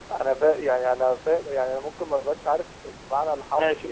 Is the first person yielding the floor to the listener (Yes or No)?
Yes